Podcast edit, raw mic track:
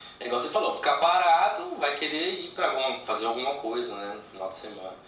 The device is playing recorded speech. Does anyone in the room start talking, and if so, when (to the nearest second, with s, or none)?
none